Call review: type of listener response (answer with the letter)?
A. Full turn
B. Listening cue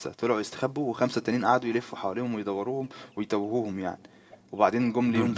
A